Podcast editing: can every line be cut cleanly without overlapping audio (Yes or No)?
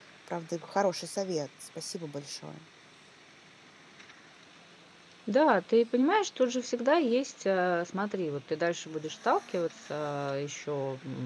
Yes